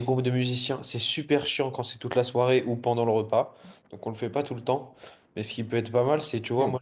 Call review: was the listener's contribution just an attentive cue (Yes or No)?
Yes